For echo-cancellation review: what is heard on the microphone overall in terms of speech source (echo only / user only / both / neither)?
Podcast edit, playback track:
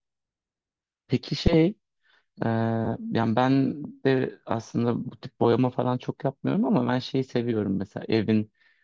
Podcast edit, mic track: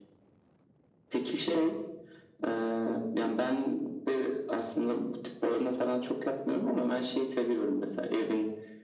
echo only